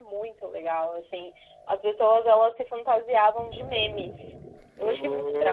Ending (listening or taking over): taking over